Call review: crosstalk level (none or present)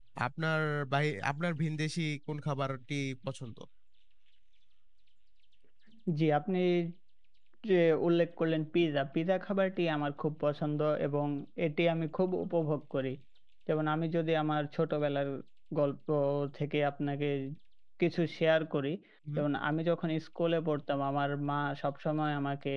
none